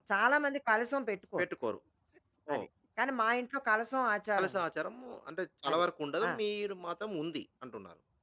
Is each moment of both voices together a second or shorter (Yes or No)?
Yes